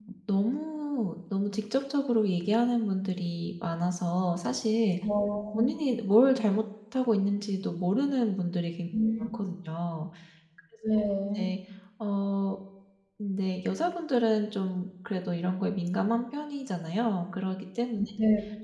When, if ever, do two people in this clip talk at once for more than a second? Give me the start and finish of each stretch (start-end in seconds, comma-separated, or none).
none